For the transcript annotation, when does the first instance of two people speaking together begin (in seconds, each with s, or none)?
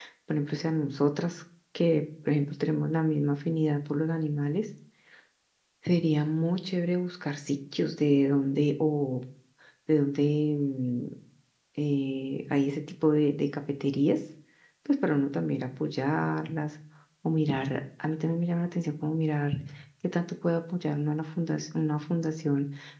none